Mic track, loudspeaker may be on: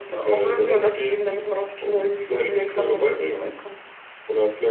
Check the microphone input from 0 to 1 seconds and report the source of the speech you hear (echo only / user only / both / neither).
echo only